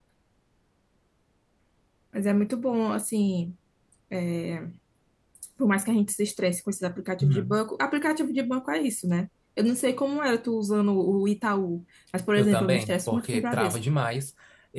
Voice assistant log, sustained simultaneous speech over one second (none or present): present